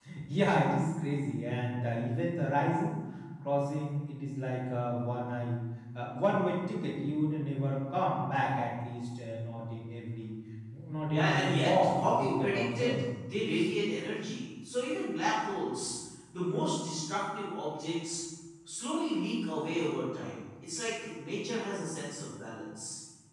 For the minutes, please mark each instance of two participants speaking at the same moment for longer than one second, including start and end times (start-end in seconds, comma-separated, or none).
11.1-13.0